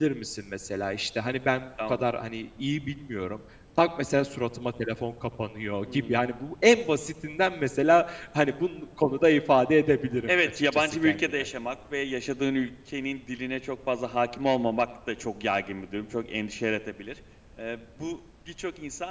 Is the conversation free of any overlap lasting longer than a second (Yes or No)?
No